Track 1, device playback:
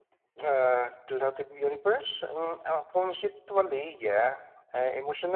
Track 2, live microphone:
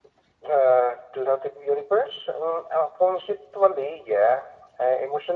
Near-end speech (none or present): none